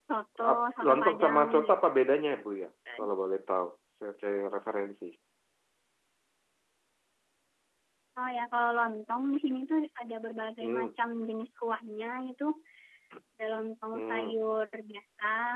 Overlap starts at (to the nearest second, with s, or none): 1 s